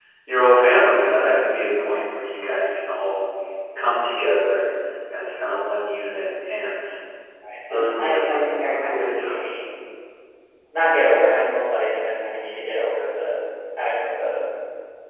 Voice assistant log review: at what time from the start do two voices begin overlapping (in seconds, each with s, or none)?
7.7 s